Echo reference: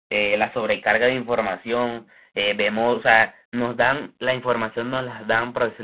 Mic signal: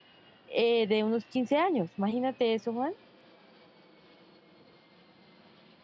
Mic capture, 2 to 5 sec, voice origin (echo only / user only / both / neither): user only